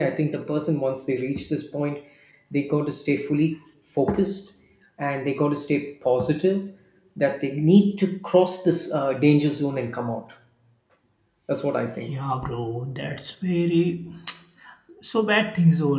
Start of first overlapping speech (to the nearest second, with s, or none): none